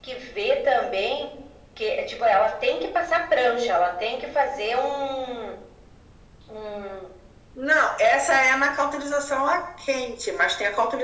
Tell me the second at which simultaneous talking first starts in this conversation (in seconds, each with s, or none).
none